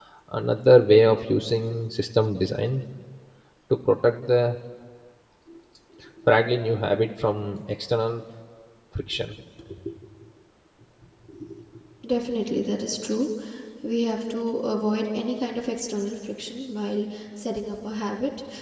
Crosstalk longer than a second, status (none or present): none